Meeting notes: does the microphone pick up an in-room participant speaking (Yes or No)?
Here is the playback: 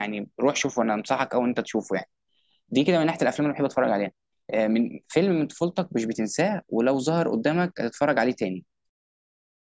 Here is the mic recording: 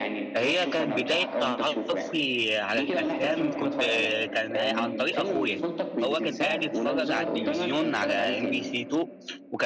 Yes